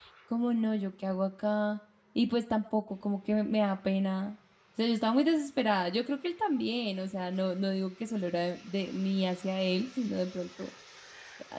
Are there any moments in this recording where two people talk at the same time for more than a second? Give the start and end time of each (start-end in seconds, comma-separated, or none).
none